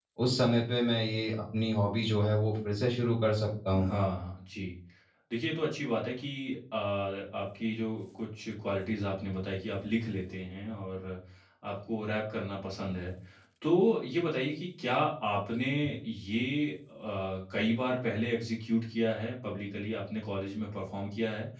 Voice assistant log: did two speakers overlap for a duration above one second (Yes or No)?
No